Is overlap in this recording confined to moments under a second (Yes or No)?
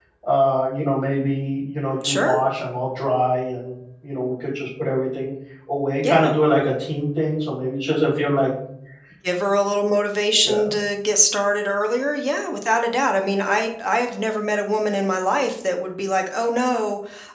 Yes